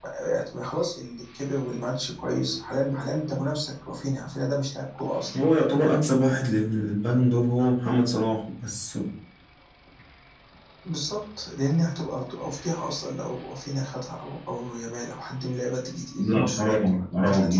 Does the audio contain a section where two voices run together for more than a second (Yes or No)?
Yes